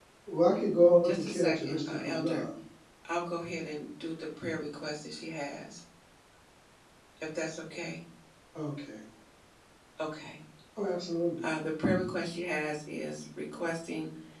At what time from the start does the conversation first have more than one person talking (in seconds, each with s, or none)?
1.0 s